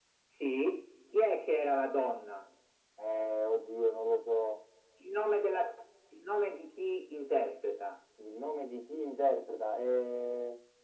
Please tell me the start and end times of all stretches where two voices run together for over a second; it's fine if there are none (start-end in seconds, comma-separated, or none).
none